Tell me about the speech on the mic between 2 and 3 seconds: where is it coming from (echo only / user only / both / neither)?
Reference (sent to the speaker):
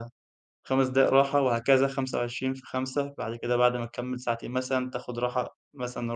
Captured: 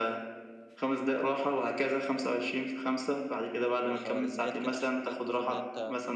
echo only